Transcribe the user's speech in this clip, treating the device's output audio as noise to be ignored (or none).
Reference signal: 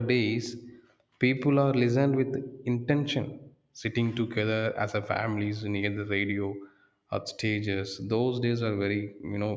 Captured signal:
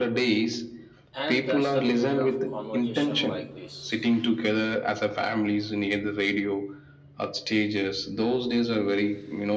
And that's the beauty of conversation like this,